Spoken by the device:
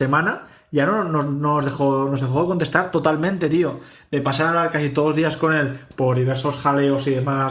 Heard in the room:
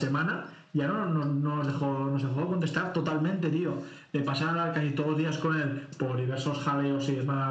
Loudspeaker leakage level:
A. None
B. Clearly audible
B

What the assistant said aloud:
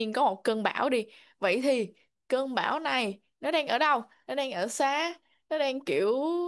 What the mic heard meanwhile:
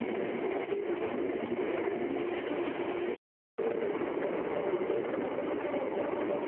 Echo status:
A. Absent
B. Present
A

